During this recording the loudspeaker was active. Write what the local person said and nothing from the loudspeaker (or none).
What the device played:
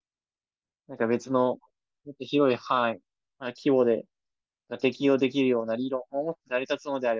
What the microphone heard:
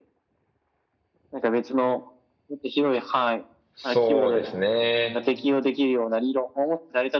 そうですね。